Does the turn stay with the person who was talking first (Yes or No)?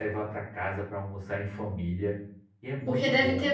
No